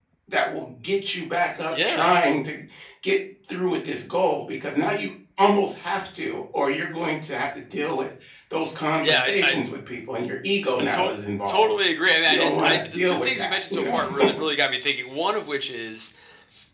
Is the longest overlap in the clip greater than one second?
Yes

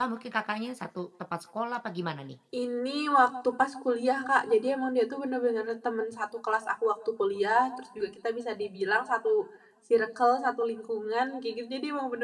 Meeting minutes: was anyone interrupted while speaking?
No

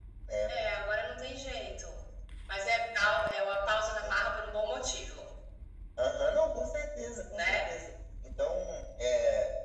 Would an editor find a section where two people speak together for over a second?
No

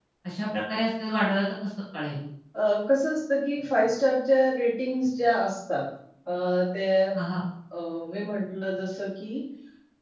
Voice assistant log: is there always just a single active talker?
Yes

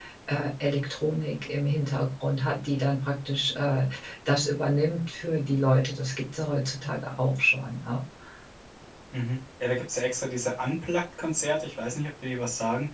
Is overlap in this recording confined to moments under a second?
Yes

